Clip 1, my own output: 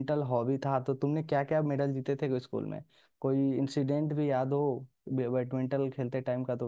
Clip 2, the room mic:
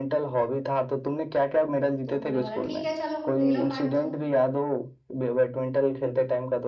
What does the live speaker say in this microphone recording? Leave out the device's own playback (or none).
तो उन्होंने बोला ठीक है चलो ले लो पार्ट तुम